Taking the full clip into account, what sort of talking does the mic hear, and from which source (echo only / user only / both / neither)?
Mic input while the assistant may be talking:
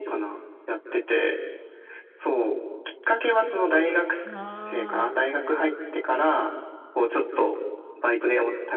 both